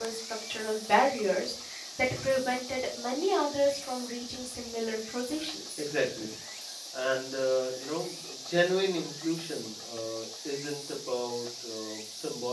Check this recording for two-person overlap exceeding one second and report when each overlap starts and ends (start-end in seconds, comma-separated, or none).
none